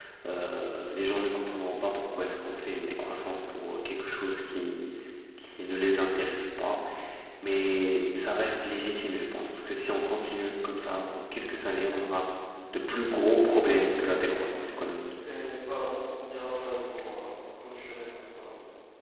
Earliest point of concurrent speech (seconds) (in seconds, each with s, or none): 13.4 s